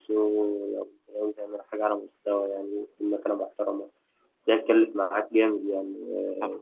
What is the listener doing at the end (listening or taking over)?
taking over